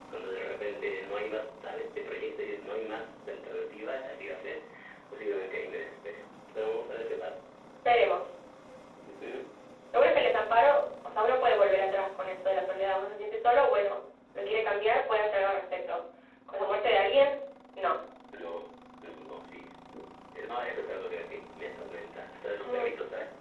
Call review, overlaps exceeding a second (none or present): none